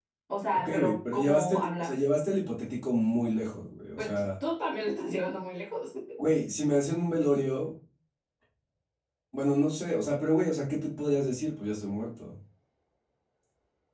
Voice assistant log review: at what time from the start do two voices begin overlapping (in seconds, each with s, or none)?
0.6 s